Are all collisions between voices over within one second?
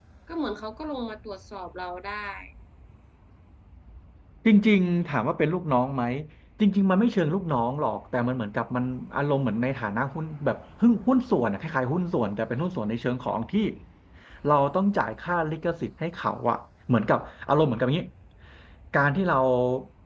Yes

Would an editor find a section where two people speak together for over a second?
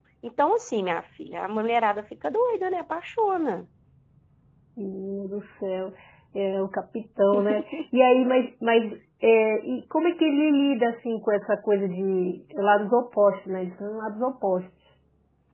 No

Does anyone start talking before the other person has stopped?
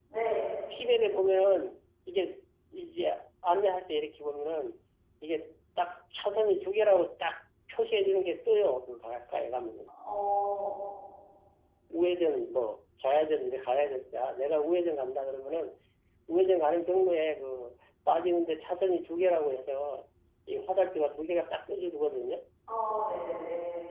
No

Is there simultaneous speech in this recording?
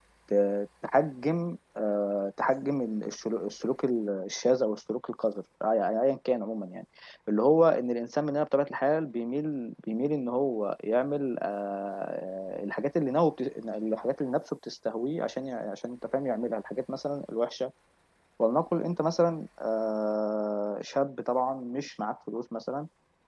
No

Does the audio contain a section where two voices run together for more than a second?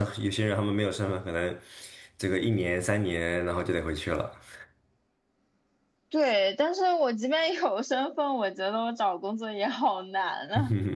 No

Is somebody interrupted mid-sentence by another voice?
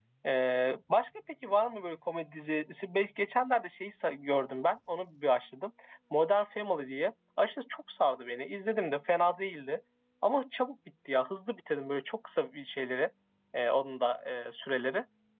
No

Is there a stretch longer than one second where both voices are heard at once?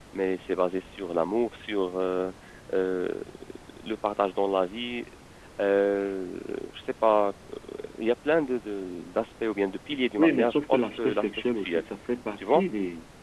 Yes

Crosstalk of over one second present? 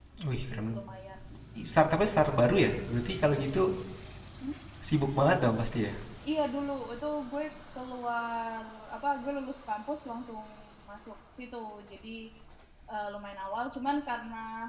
No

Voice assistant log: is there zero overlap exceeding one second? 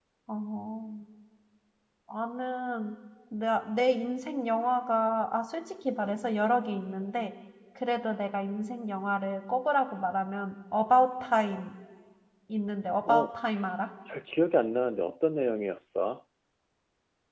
Yes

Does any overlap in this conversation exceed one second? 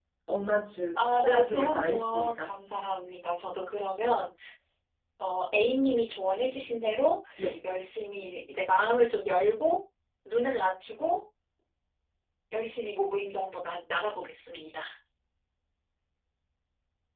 Yes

